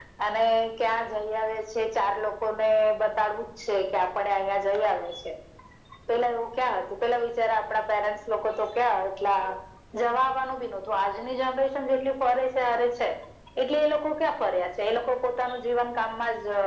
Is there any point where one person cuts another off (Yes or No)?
No